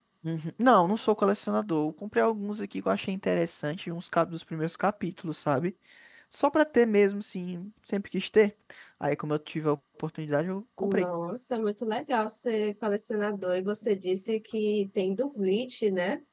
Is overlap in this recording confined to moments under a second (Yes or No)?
Yes